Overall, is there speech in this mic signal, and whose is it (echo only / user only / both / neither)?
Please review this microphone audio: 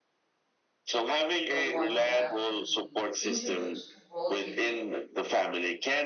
both